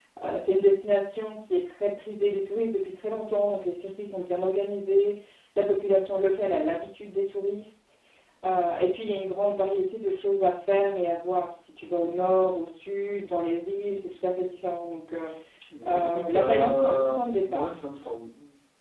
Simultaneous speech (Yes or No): Yes